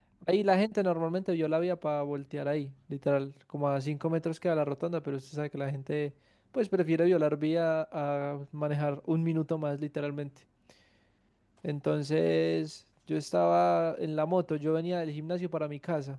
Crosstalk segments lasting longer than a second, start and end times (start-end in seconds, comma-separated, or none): none